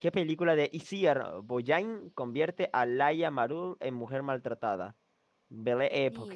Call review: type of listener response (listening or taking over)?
listening